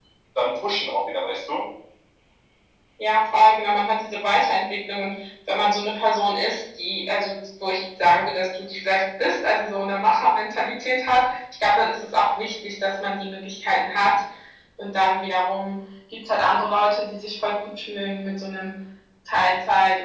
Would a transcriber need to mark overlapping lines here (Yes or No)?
No